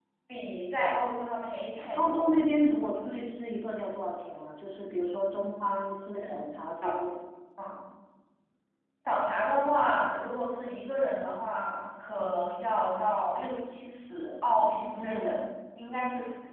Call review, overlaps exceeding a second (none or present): none